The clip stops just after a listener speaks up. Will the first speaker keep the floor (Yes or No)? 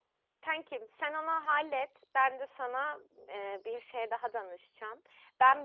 Yes